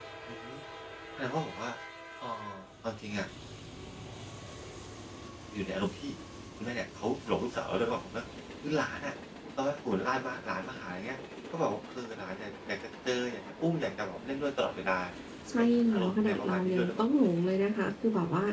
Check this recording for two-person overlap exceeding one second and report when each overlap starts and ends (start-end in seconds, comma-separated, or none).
15.6-17.1